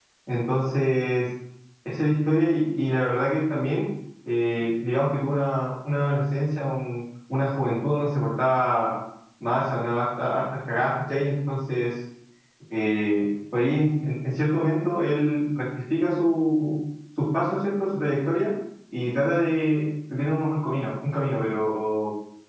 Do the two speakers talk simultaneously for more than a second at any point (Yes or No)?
No